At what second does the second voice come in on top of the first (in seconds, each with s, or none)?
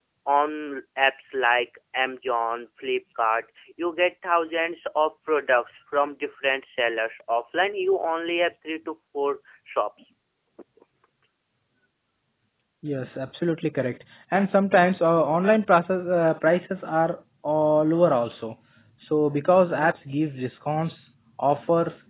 none